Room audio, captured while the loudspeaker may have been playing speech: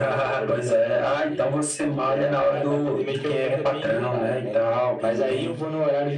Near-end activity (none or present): none